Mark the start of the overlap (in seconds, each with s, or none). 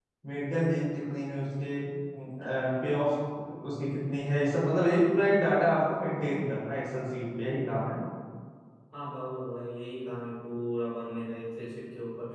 none